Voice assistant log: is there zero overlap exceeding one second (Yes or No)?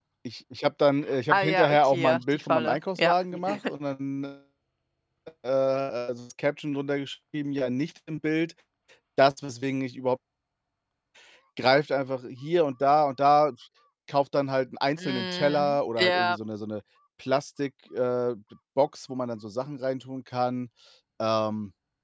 No